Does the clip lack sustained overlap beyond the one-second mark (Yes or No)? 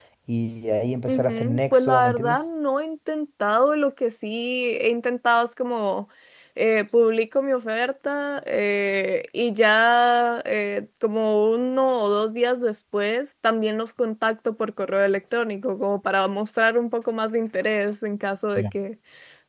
No